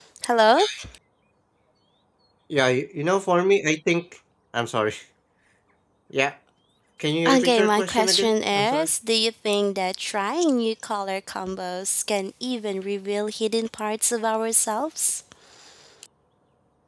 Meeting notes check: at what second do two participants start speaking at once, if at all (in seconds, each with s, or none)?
7.2 s